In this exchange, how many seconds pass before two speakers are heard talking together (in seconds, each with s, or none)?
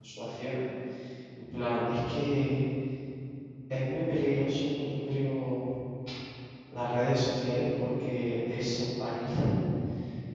none